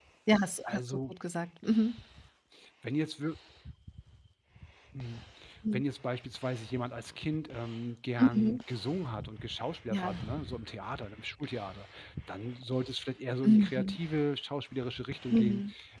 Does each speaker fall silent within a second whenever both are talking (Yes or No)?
Yes